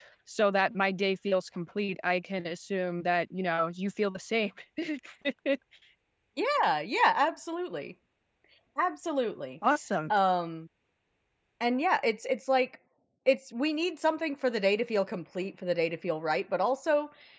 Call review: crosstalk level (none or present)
none